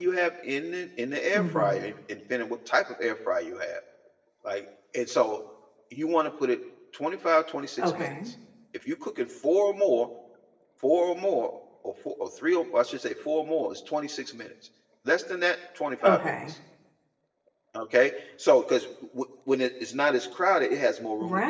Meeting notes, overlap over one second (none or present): none